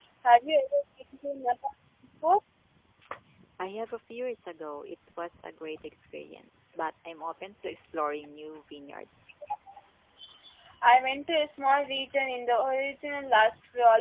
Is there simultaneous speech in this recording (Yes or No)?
No